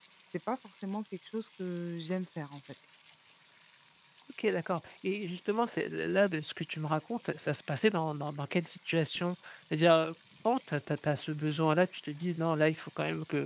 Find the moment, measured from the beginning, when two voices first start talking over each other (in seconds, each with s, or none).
none